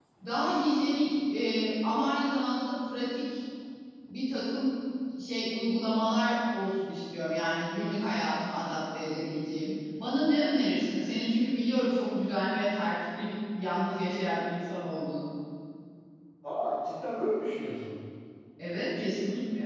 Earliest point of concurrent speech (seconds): none

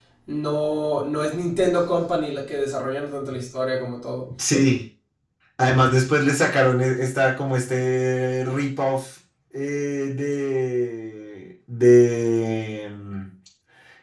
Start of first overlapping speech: none

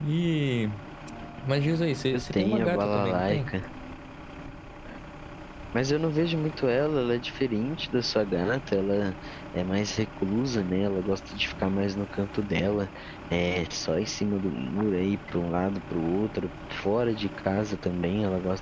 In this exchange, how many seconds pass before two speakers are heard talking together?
2.1 s

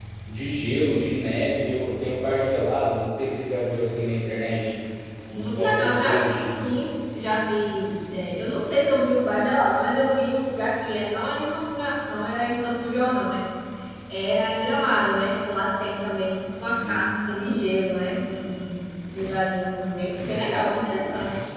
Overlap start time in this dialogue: 5.3 s

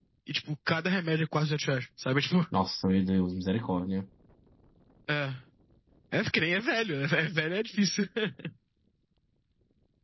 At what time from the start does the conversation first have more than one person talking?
none

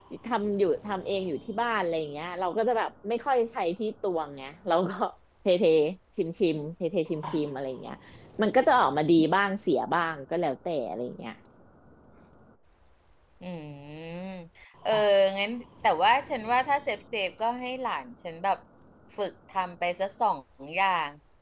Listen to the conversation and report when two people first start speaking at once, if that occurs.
none

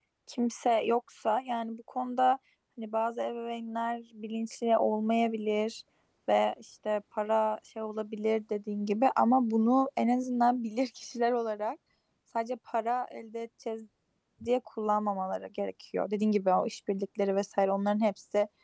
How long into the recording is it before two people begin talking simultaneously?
none

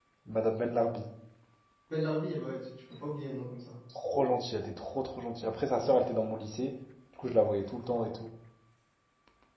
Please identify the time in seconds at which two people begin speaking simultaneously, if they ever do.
none

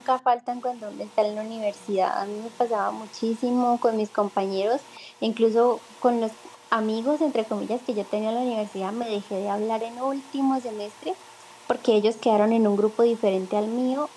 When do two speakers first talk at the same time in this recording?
none

